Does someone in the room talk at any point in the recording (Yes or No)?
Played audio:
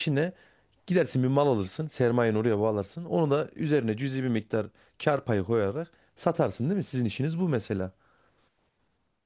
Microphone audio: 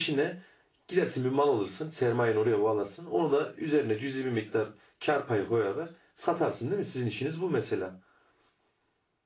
No